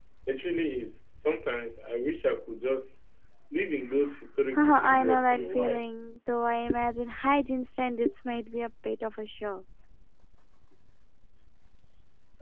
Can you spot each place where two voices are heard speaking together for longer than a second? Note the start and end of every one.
4.5-5.9

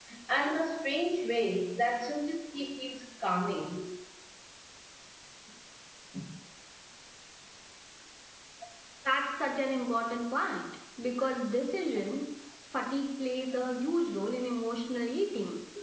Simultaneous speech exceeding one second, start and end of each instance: none

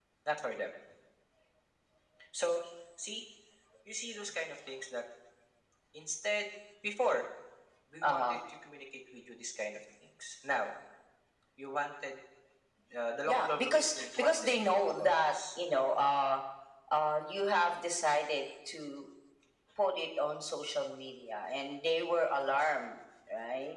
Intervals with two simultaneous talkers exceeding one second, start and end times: 13.3-15.4

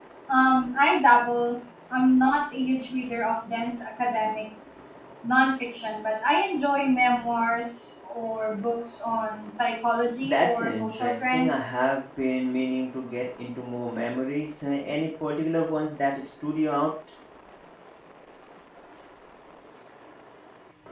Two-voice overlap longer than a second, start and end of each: 10.2-11.5

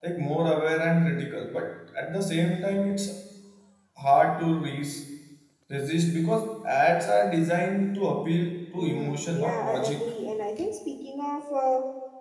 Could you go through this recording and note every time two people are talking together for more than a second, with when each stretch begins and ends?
8.8-10.1

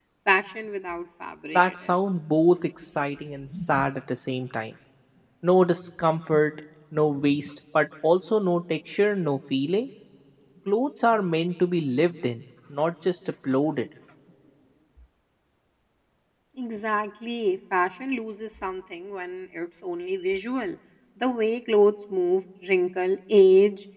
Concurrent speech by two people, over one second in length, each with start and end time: none

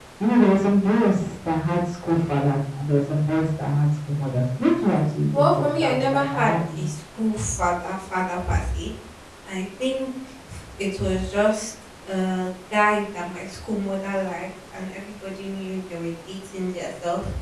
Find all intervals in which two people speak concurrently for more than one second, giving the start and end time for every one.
5.4-6.9

